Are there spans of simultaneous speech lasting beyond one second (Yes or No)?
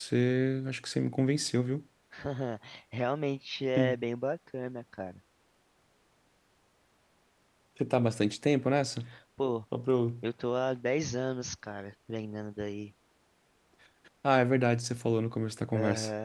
No